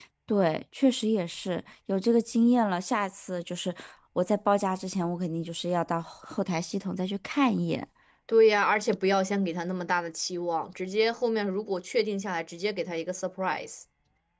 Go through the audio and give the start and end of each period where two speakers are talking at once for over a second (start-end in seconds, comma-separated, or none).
none